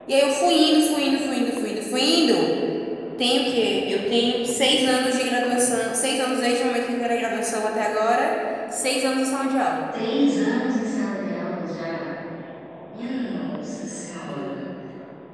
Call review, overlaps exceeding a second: none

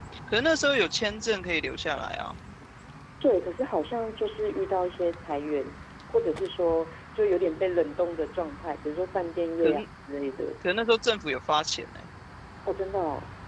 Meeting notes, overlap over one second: none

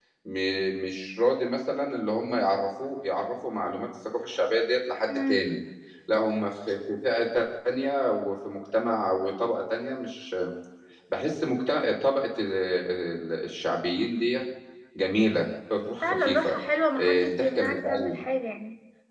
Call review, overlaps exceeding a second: present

